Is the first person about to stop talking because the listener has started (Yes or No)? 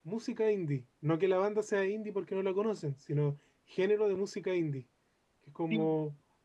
No